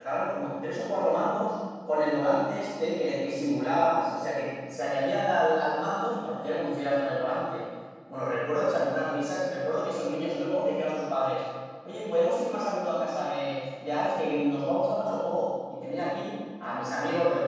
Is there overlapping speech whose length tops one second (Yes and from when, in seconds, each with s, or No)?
No